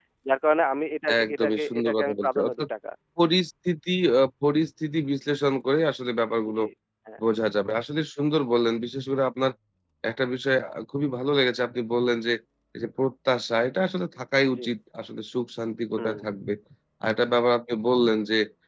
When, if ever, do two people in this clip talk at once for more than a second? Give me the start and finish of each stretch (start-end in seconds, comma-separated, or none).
1.2-2.7